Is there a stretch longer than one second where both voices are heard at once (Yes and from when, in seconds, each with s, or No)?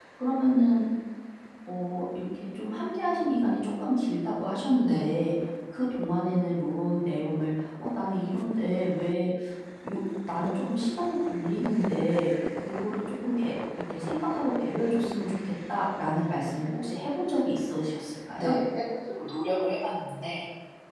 No